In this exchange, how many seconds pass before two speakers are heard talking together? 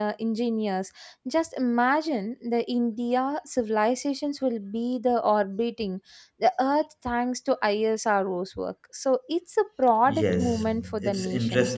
10.1 s

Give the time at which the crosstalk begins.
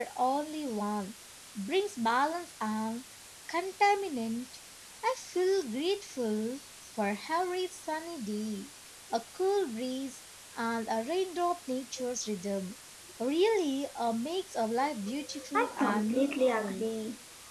15.5 s

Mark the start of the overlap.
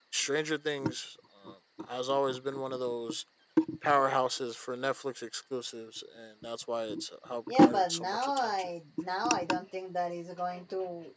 7.5 s

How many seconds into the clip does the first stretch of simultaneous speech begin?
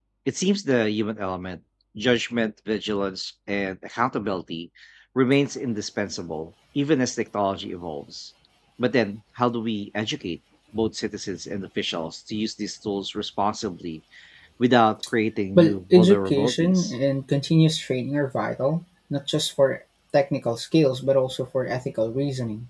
15.6 s

